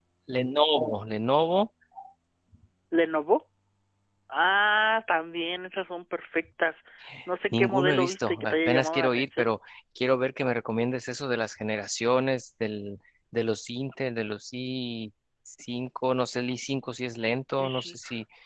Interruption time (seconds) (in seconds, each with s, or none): 7.5 s